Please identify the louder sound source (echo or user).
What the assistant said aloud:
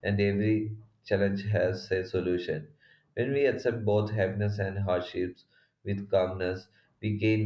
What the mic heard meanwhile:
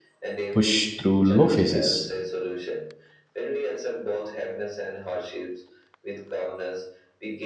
user